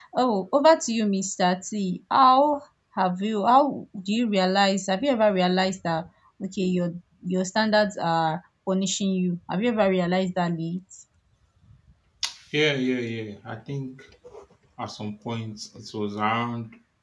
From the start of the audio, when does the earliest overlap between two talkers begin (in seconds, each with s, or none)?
none